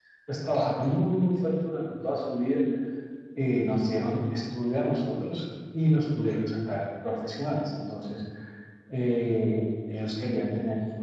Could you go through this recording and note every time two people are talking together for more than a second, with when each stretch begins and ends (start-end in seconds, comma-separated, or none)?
none